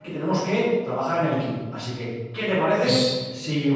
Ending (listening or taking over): listening